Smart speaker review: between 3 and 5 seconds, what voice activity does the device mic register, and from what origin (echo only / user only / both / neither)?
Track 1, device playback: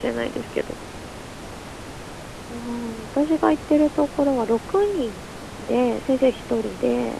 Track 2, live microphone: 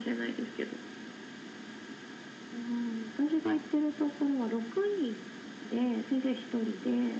echo only